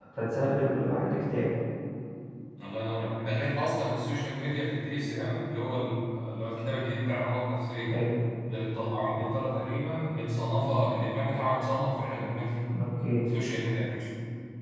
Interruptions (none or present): none